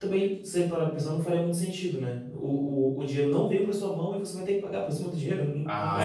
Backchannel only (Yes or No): No